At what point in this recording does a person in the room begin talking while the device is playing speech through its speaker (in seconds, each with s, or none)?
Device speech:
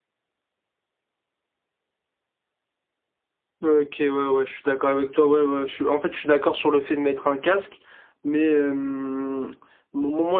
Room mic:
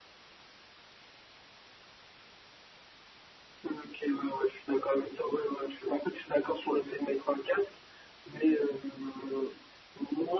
none